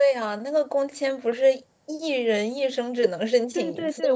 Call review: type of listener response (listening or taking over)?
taking over